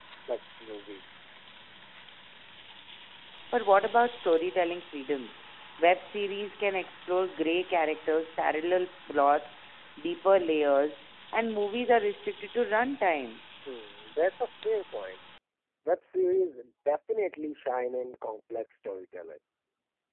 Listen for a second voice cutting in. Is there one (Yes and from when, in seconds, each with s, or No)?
No